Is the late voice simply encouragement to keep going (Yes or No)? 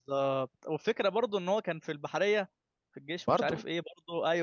Yes